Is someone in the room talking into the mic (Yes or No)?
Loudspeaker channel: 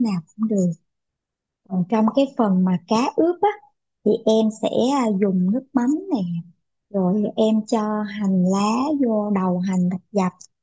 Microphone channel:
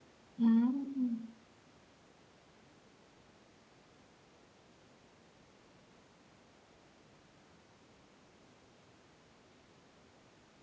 Yes